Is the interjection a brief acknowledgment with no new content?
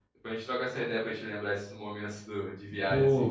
No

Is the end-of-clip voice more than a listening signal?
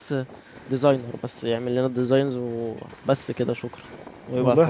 Yes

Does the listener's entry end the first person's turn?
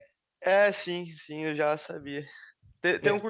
No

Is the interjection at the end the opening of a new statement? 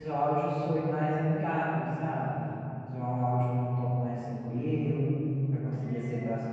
Yes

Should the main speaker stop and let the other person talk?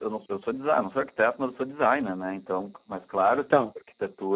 No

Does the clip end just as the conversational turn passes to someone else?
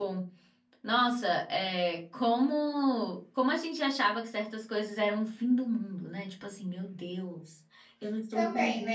Yes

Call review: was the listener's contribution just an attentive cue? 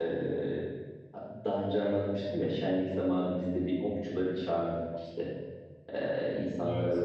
Yes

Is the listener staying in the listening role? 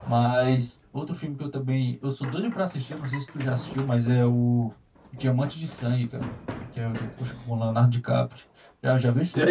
No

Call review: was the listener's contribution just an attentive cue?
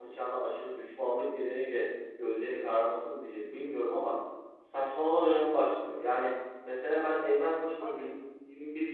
Yes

